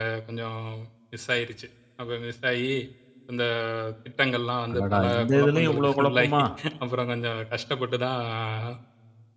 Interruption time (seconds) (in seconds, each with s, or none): 4.7 s